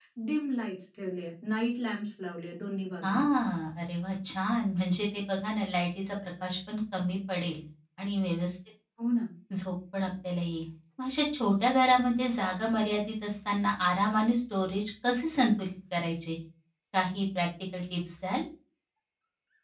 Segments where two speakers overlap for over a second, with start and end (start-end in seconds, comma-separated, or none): none